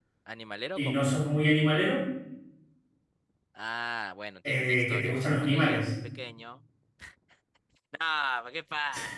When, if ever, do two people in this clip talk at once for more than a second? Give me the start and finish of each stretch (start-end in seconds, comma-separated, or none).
4.5-5.9